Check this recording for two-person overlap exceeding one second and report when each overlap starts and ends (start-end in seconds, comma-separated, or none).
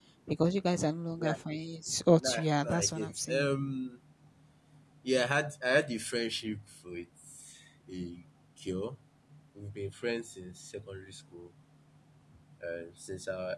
2.2-3.5